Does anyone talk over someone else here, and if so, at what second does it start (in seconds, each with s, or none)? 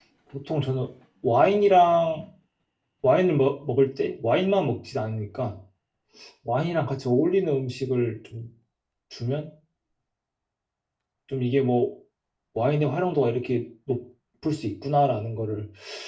none